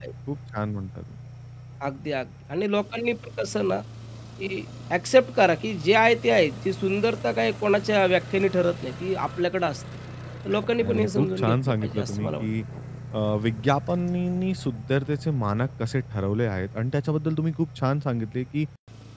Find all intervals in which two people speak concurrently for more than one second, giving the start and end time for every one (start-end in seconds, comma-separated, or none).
10.8-12.5